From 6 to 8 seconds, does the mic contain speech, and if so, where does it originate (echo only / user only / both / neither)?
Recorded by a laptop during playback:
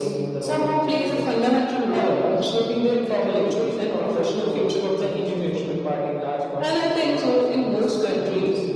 echo only